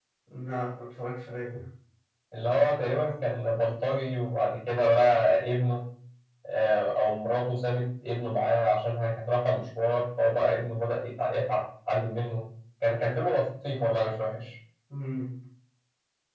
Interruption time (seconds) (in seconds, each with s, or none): none